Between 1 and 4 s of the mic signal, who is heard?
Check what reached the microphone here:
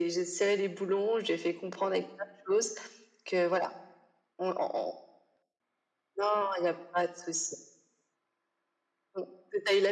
echo only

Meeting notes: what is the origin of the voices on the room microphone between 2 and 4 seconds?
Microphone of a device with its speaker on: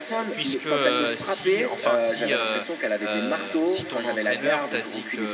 both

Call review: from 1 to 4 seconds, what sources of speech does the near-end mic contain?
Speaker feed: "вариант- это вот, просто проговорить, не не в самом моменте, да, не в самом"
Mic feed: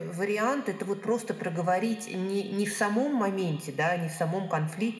echo only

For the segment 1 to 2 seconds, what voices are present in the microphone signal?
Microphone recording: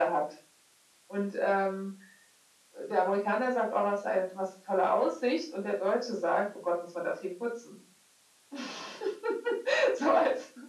echo only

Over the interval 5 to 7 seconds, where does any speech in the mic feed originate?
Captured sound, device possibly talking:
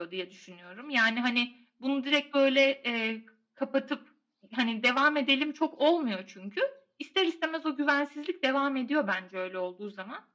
echo only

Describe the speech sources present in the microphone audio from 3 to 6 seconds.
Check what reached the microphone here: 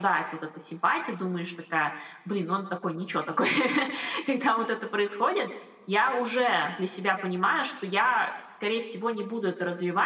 echo only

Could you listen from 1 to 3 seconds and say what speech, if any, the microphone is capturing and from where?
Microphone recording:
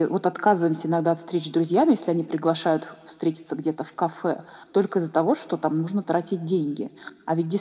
echo only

